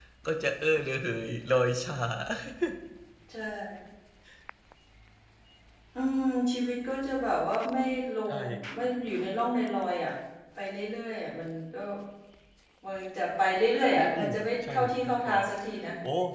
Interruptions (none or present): present